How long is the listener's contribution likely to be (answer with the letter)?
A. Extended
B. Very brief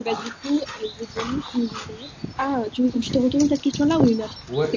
A